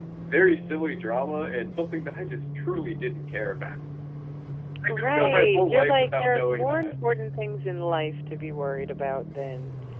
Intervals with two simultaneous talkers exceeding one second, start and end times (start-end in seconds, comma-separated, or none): 4.9-6.9